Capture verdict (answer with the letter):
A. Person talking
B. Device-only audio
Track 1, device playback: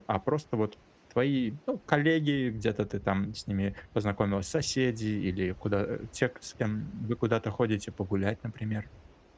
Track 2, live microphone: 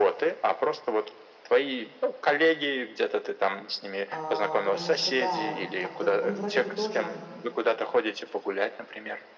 A